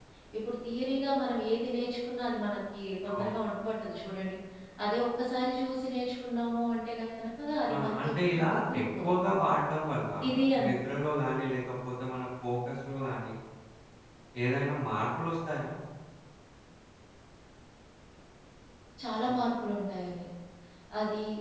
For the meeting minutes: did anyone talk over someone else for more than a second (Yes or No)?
Yes